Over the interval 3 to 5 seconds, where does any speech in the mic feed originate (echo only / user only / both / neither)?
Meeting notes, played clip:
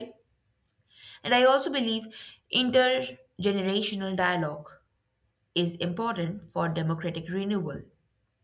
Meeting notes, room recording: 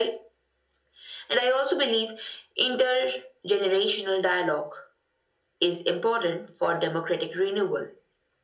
echo only